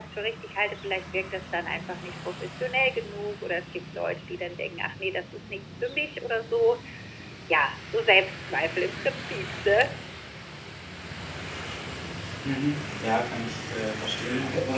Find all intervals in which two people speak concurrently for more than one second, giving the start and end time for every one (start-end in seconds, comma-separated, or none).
none